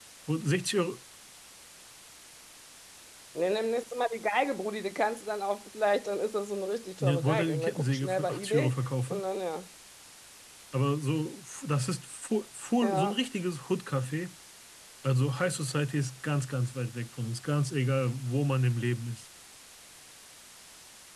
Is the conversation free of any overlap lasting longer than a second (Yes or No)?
No